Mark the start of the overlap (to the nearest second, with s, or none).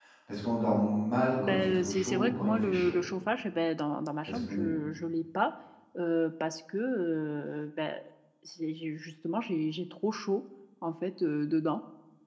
1 s